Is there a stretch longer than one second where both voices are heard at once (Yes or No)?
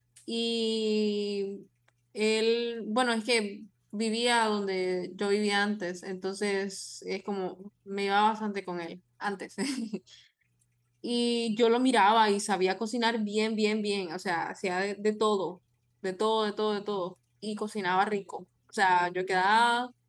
No